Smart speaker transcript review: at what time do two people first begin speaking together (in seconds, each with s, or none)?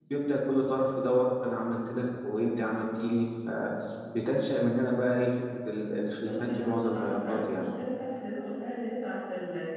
6.1 s